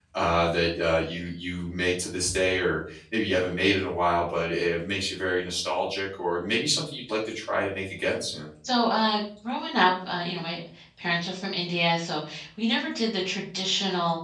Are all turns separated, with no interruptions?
Yes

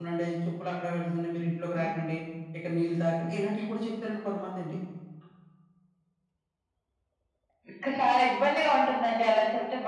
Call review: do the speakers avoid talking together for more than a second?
Yes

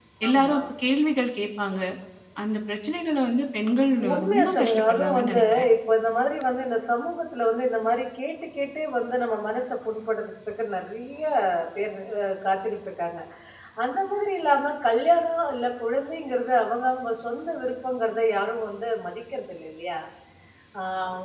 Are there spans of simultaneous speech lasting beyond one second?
Yes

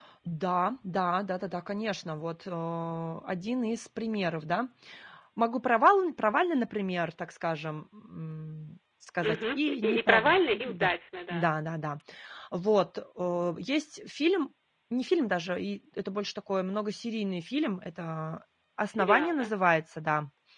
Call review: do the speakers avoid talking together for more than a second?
No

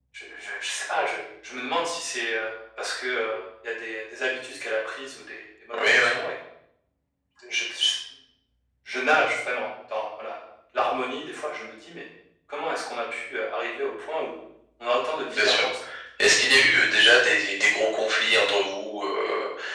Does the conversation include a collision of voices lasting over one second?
No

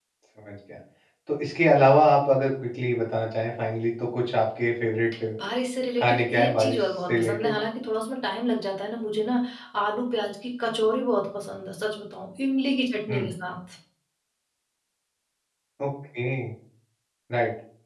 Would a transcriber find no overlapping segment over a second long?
No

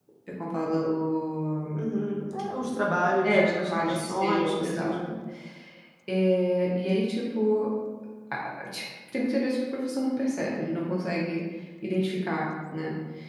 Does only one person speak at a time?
No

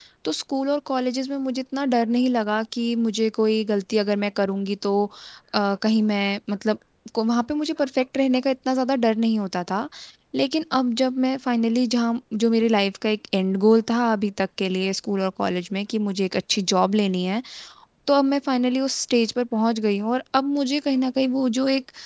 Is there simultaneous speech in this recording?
No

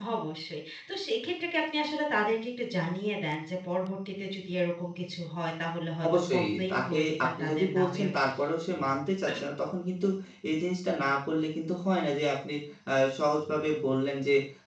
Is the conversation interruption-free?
No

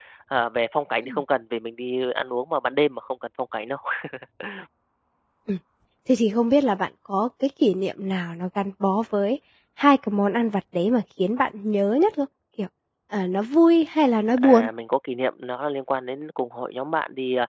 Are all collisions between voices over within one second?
Yes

